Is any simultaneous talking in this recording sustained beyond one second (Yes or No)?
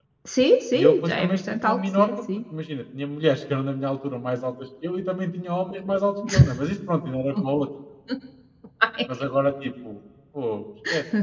Yes